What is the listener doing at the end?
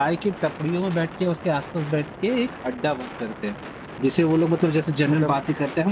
listening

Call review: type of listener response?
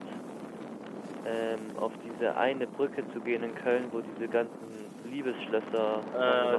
taking over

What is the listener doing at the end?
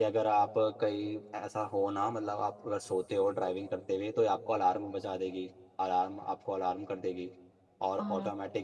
listening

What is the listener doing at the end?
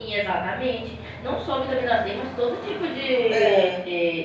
listening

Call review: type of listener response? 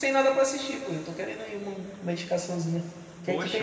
taking over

